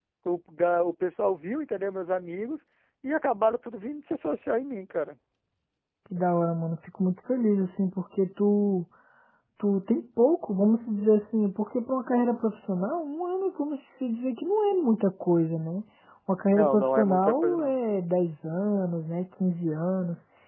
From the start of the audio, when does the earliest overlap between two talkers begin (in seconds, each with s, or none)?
16.5 s